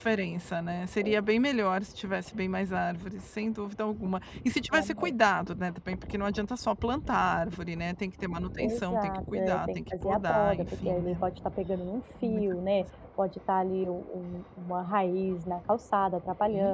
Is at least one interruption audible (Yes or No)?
Yes